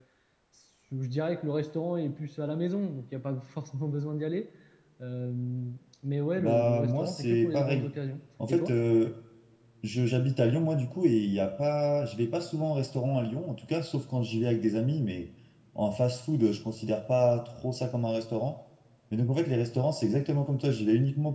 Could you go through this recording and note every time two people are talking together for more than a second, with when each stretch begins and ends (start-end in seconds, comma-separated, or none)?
6.4-7.9